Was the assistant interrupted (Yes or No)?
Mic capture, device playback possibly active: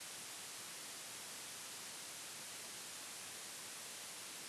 No